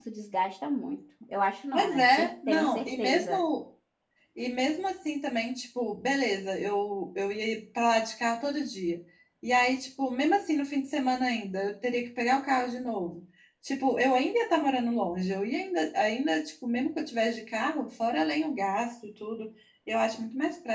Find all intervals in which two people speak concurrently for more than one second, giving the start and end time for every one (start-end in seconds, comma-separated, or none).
1.7-3.4